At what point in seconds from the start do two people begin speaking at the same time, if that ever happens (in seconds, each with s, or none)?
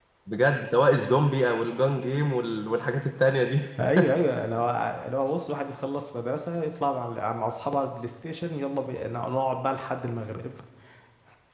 none